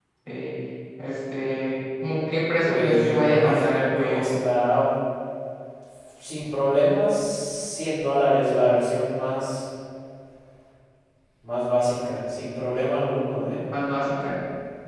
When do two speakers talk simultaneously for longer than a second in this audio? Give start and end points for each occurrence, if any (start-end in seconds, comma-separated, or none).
2.6-4.2